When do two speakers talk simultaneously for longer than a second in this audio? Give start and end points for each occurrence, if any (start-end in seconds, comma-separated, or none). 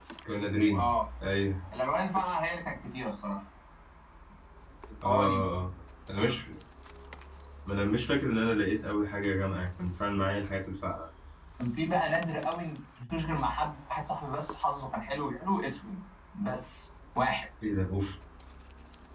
none